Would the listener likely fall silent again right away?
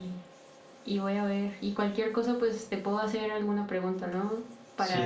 No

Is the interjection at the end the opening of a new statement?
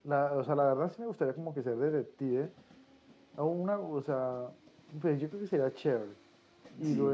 No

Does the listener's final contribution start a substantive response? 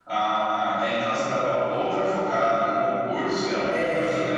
No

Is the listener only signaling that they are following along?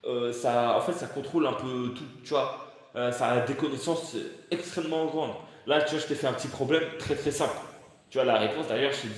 Yes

